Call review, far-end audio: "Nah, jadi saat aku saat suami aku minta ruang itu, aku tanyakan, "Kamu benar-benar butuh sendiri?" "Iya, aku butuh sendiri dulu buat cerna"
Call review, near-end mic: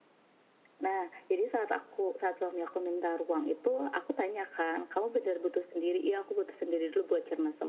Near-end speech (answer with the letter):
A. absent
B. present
A